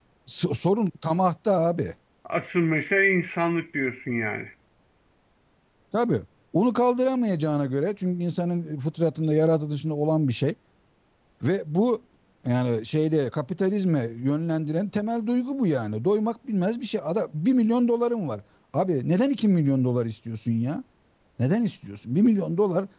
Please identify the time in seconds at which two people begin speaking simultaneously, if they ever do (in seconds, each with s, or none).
none